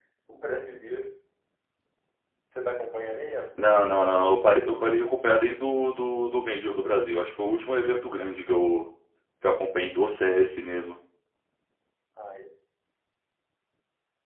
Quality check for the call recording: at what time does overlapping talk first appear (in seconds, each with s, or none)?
3.6 s